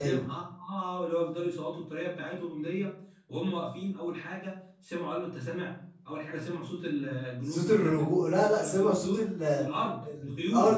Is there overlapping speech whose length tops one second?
Yes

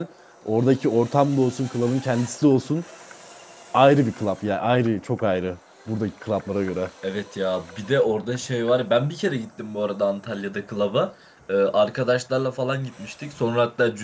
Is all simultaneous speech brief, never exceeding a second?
Yes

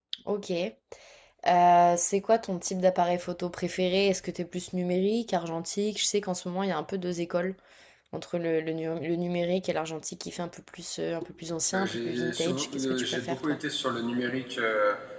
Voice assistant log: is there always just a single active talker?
No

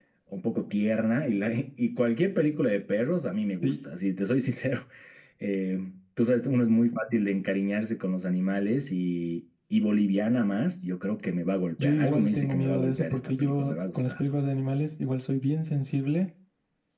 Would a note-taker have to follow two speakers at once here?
Yes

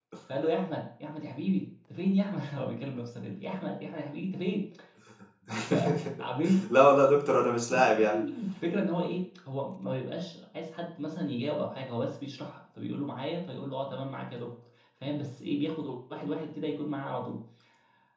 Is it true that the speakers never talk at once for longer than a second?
Yes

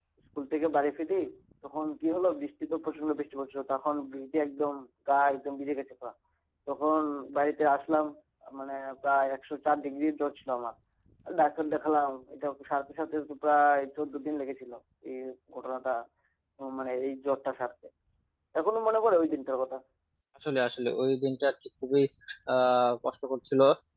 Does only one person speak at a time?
Yes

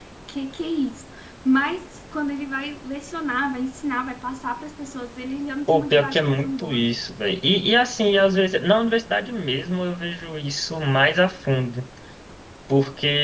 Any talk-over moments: Yes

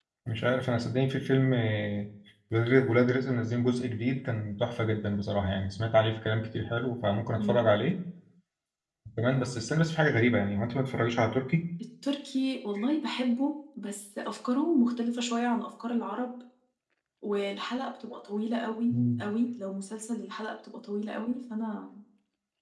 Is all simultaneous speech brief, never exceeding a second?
Yes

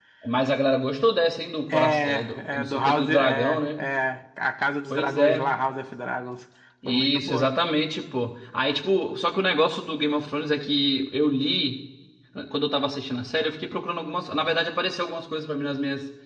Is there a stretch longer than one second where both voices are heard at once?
Yes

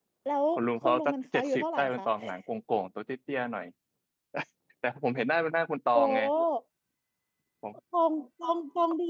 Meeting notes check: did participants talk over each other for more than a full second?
Yes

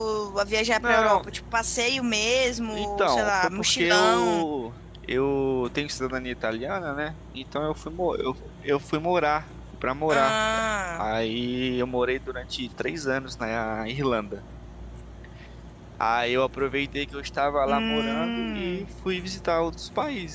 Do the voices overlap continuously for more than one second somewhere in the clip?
Yes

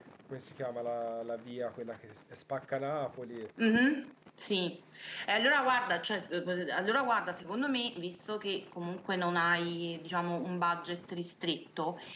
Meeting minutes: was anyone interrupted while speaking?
No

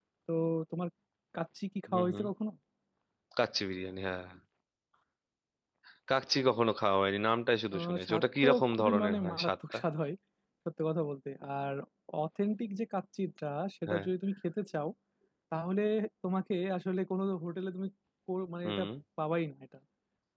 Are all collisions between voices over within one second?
No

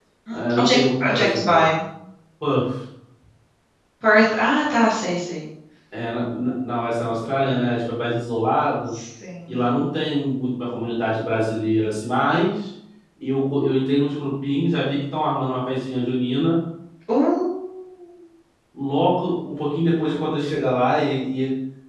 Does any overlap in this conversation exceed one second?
Yes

